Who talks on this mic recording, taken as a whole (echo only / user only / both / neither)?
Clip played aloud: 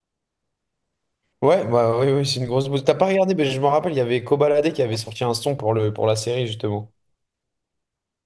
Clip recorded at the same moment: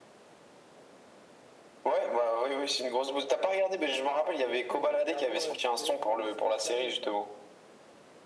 both